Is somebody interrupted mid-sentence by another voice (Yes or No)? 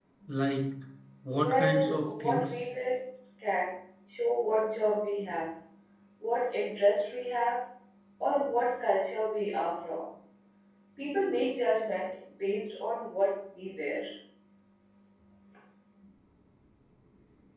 Yes